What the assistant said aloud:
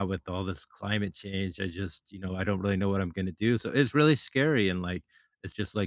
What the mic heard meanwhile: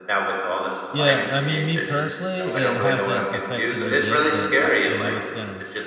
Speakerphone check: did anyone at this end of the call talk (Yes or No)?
Yes